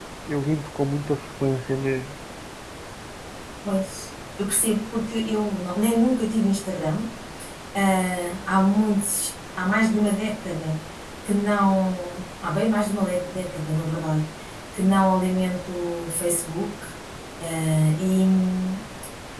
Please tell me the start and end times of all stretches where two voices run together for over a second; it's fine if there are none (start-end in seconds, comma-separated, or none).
none